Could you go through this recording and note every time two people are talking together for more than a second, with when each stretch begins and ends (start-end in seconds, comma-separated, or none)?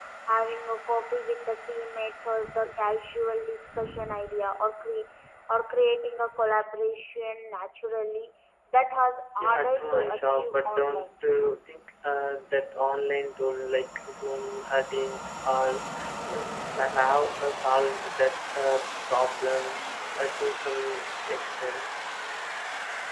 9.4-11.1